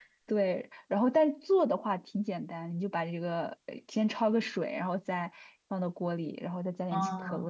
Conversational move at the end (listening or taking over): listening